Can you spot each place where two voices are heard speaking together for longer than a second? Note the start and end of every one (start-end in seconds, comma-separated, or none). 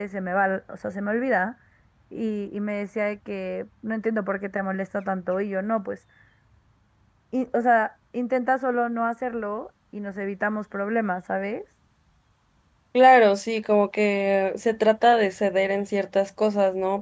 none